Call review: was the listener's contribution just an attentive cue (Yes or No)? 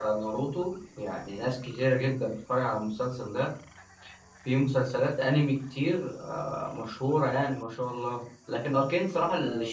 Yes